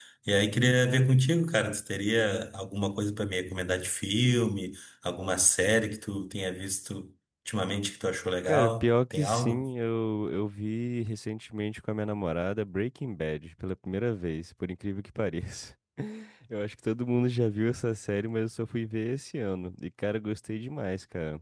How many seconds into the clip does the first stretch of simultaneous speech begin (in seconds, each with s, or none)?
8.4 s